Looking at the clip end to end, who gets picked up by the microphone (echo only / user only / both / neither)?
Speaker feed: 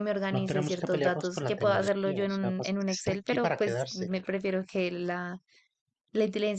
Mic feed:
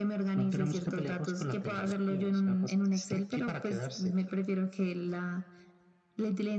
echo only